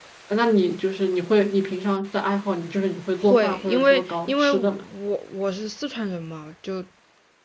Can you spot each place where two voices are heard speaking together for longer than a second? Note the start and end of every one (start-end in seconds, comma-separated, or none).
3.2-4.7